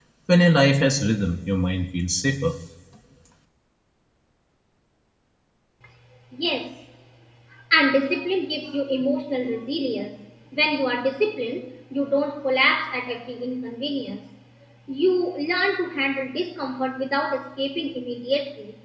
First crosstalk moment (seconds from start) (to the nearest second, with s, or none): none